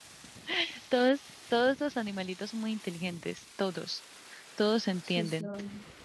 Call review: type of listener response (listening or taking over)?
listening